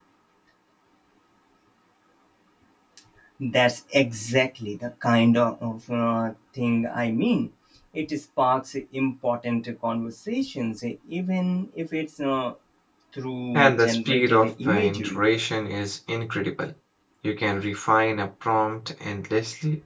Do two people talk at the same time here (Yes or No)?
Yes